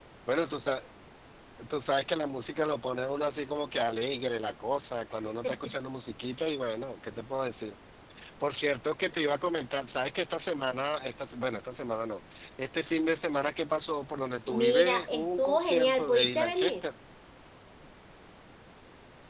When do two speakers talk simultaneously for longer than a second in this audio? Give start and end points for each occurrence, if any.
14.5-16.7

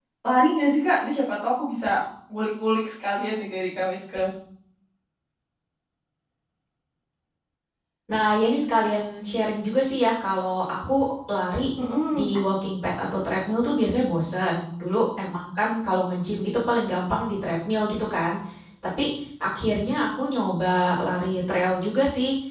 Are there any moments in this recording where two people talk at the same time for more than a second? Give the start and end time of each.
none

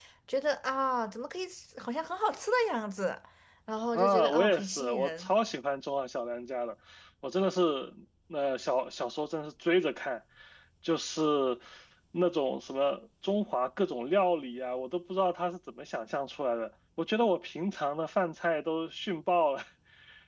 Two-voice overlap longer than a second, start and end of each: 3.9-5.3

